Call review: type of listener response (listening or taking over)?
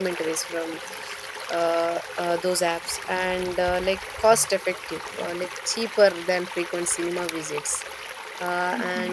listening